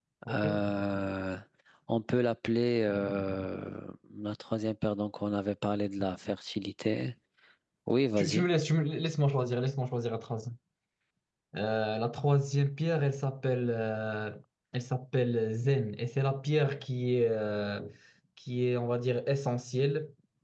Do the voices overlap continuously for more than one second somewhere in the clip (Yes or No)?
No